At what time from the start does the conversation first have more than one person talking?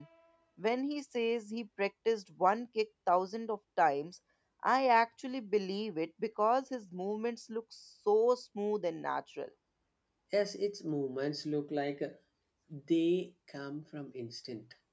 none

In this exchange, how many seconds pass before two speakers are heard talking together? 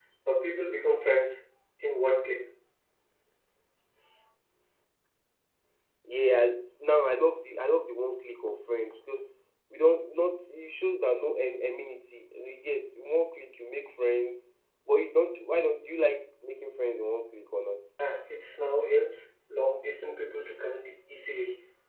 none

